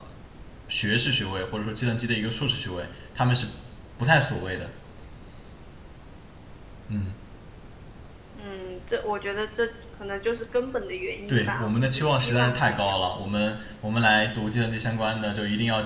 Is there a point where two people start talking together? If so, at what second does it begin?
11 s

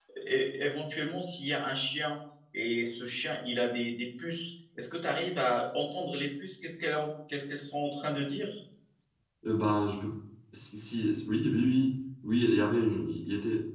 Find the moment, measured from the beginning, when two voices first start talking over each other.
none

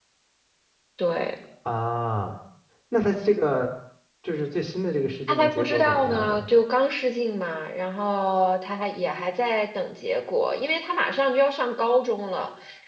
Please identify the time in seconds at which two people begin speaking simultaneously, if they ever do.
5 s

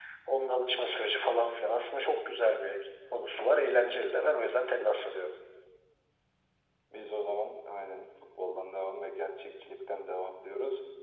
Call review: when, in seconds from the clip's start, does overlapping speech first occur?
none

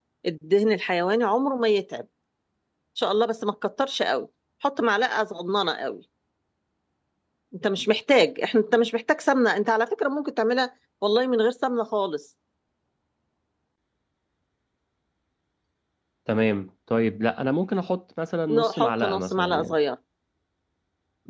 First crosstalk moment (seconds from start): 18 s

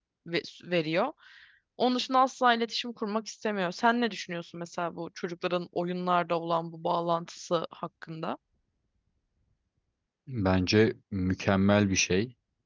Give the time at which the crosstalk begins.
none

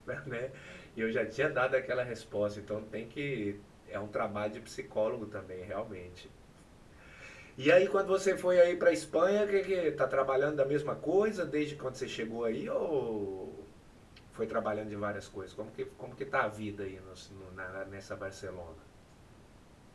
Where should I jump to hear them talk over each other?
none

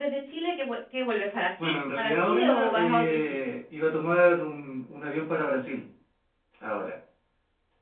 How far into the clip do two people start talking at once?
2 s

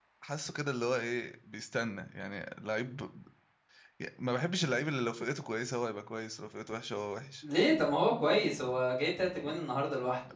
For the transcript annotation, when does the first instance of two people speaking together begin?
none

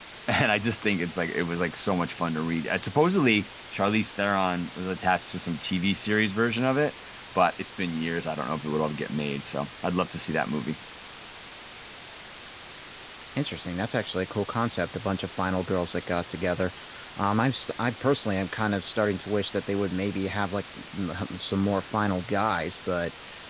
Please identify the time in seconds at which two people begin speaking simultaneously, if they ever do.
none

